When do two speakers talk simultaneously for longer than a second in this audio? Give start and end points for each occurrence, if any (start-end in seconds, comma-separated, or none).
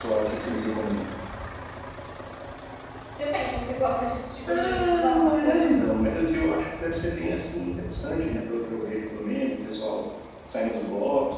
4.5-5.8